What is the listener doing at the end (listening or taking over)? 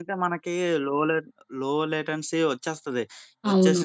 listening